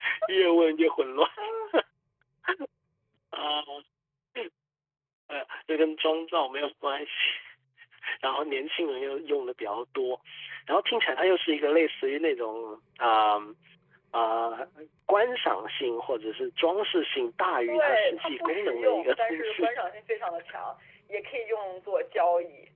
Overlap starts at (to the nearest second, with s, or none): 18 s